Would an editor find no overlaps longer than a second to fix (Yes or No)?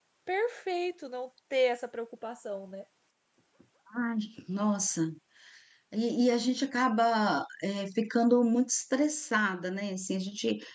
Yes